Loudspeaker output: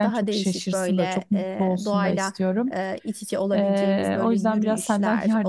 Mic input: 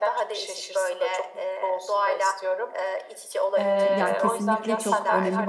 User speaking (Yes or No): Yes